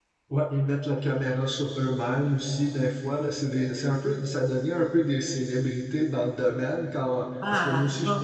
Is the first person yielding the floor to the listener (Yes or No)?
No